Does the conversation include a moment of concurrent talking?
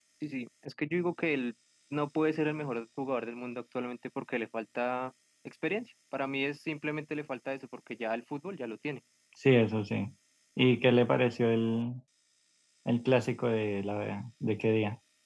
No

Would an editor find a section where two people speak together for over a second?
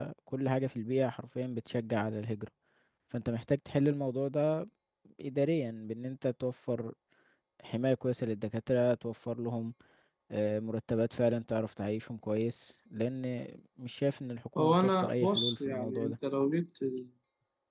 Yes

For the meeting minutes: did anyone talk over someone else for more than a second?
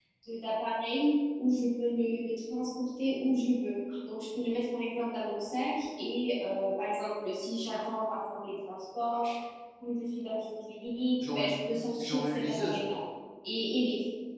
Yes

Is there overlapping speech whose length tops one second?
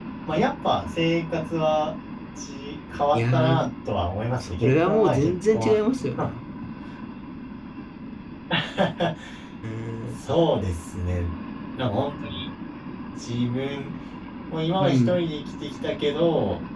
Yes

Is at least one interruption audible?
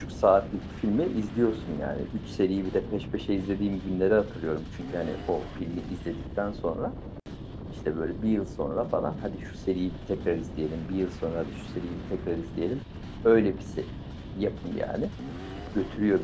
No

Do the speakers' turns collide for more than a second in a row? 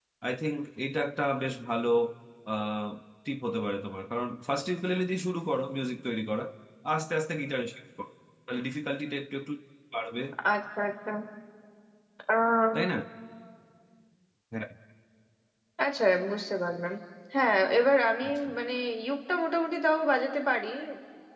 No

